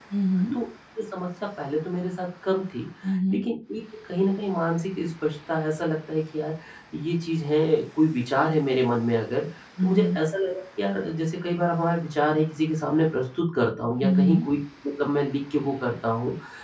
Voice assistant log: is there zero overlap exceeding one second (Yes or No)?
Yes